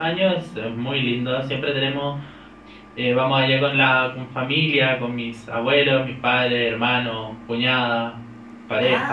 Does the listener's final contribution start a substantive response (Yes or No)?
Yes